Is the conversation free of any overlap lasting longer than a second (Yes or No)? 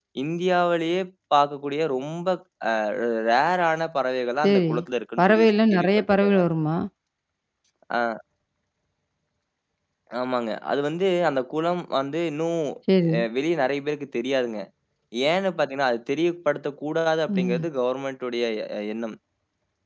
No